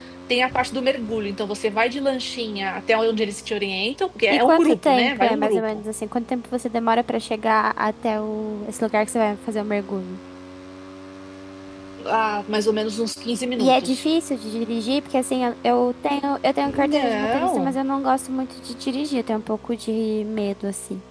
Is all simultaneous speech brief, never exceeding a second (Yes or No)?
No